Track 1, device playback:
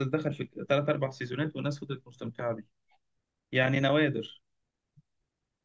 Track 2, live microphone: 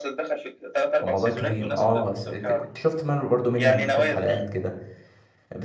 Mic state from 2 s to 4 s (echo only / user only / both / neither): both